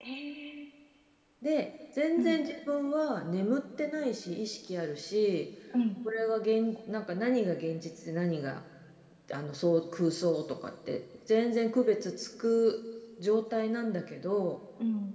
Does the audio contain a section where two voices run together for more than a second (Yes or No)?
No